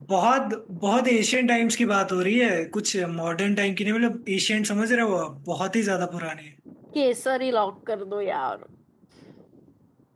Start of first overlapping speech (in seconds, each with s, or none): none